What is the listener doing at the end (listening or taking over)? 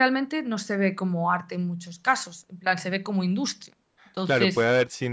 taking over